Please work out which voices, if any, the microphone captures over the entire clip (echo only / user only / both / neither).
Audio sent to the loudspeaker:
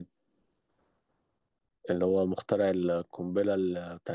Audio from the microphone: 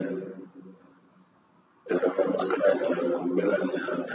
echo only